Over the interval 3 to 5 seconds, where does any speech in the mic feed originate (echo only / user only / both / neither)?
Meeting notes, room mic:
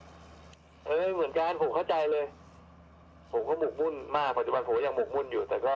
echo only